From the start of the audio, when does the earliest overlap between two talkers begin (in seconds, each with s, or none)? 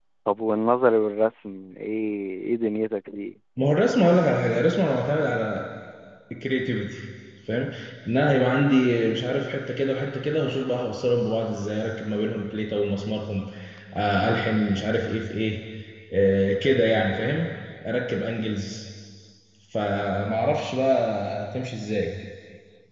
none